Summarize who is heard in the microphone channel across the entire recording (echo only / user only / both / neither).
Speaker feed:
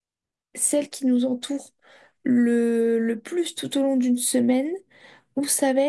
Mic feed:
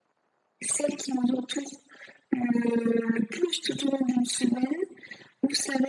echo only